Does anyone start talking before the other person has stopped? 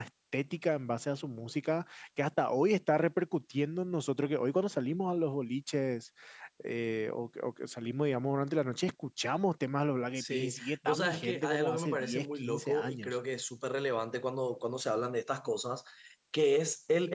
Yes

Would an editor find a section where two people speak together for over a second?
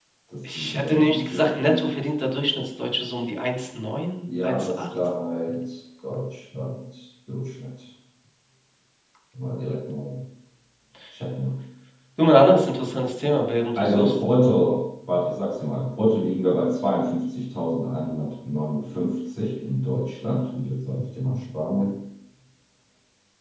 Yes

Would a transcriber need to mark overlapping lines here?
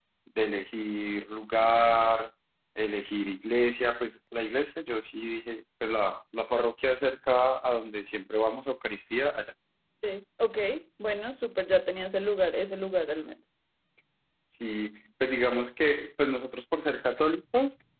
No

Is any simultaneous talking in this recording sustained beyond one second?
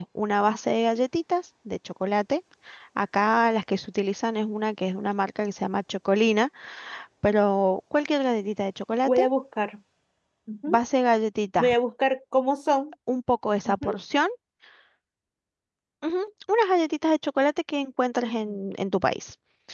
No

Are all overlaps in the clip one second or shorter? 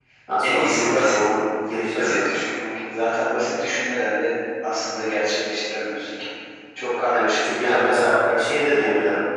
No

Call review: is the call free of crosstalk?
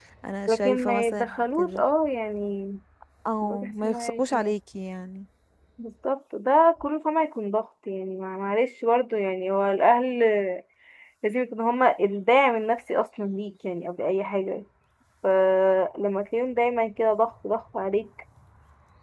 No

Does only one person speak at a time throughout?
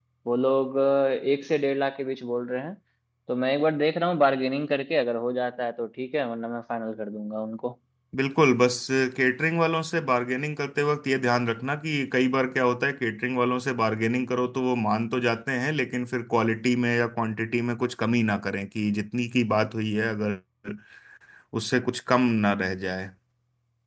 Yes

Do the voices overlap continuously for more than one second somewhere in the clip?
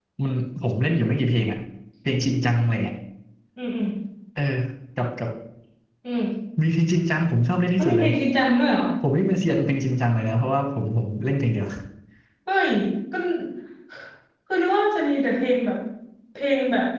No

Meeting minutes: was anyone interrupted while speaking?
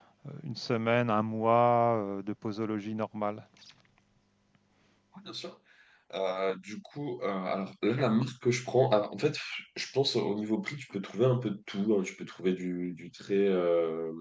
No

